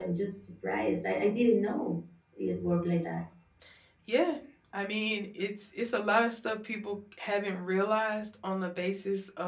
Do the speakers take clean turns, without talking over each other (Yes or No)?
Yes